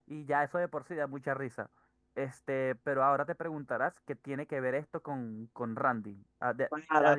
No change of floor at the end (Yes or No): No